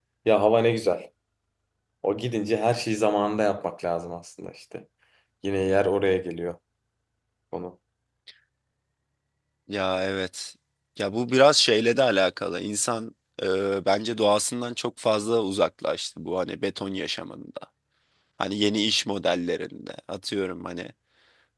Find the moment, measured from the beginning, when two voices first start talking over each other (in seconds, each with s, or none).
none